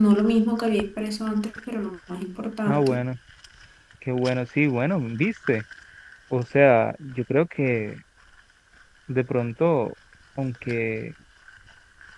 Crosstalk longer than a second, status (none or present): none